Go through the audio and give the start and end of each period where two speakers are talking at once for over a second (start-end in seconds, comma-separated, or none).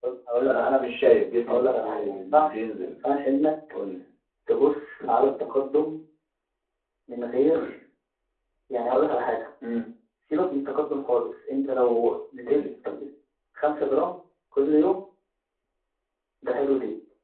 1.5-2.9